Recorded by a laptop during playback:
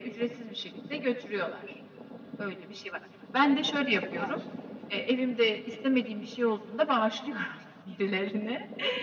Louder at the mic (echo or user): echo